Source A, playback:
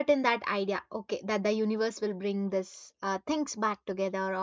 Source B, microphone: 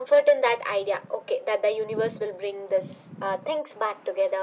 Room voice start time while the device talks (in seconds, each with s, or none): none